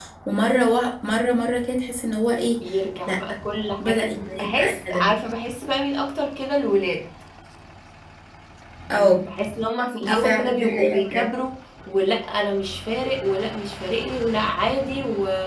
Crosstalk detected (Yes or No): Yes